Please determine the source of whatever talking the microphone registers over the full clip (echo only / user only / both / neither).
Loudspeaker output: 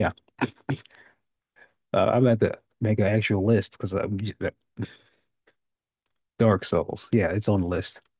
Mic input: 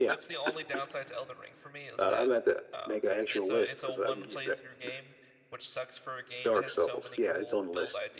both